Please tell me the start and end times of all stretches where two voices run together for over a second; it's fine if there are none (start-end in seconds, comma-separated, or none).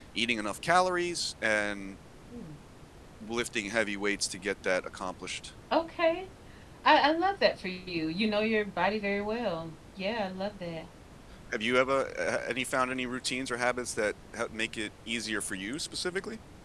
none